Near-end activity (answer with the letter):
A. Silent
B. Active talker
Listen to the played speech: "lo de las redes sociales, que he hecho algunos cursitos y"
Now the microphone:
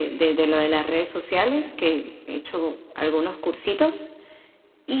A